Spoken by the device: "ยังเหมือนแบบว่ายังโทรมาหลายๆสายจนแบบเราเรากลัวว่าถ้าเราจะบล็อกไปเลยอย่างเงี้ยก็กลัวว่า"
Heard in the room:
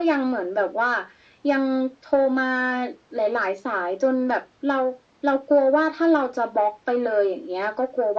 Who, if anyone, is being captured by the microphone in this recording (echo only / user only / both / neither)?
echo only